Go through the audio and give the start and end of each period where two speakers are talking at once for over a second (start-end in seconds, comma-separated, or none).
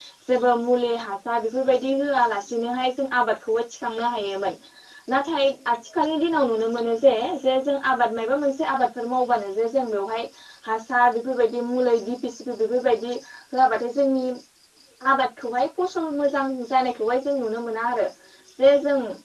none